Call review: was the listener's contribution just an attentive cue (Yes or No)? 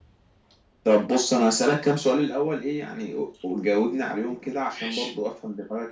Yes